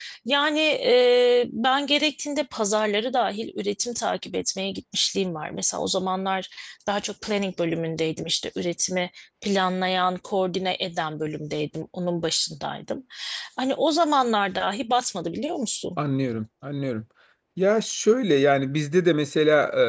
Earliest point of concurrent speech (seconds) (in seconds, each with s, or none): none